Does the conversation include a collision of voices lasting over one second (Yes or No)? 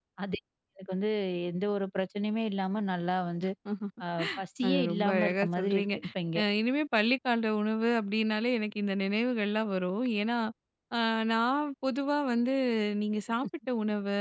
Yes